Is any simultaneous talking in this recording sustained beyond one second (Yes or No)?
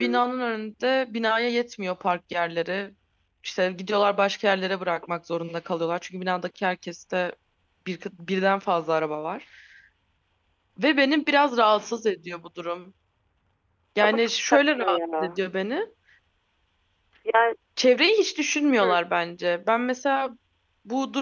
Yes